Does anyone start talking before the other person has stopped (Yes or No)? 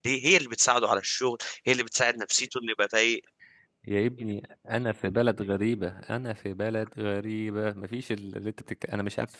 No